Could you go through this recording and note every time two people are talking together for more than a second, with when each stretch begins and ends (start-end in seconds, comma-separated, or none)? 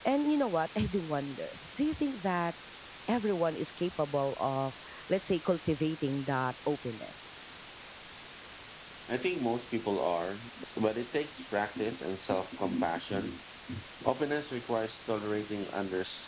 none